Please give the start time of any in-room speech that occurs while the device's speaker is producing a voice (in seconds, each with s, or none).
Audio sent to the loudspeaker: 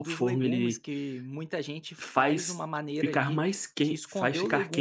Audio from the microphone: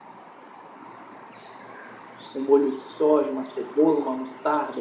2.3 s